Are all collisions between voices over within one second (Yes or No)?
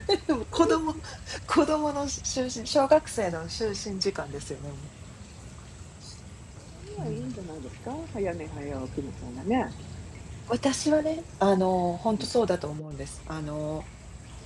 Yes